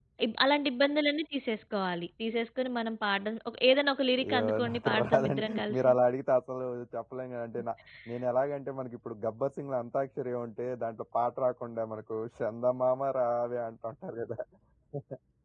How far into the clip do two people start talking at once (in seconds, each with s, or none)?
4.1 s